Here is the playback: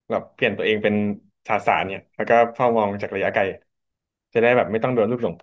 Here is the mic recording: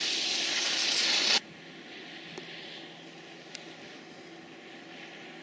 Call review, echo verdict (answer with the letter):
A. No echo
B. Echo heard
A